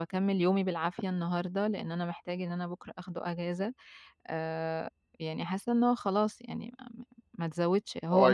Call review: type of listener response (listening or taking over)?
taking over